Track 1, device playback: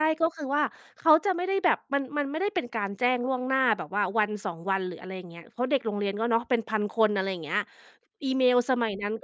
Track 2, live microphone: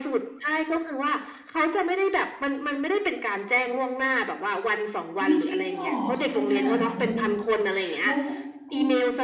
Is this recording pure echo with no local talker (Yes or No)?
No